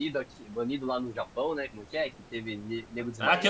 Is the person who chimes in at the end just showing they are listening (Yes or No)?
No